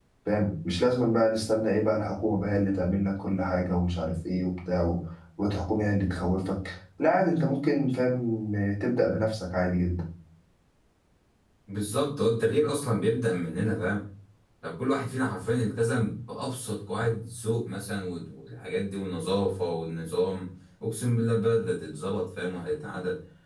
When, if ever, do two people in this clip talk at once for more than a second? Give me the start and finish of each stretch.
none

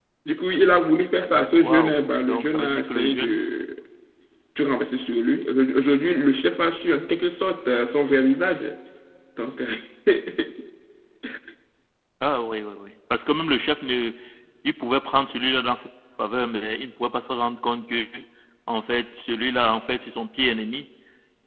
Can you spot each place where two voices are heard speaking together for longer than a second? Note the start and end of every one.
1.5-3.4

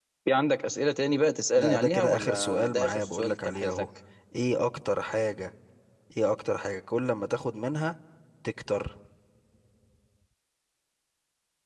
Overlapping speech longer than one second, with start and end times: 1.6-3.8

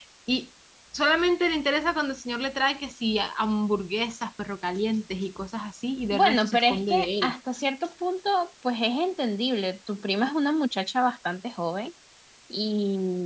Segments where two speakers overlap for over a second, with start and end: 6.1-7.3

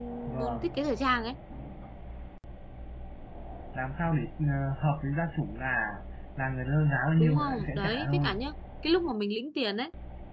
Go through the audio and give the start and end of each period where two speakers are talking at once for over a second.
7.2-8.4

